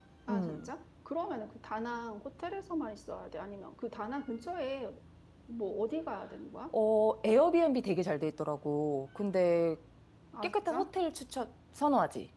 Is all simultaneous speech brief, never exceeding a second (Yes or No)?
Yes